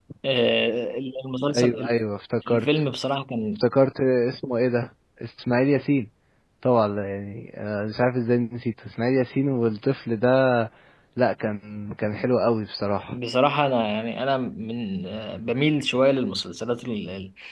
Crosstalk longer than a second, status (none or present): none